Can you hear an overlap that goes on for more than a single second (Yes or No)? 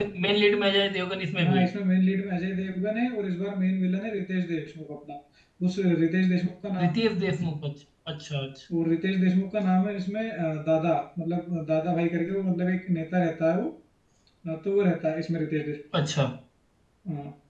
No